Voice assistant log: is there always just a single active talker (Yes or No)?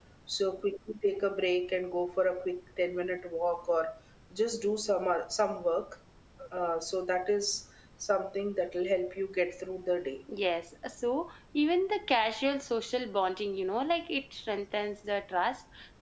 Yes